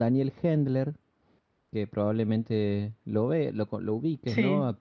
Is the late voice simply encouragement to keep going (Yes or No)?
Yes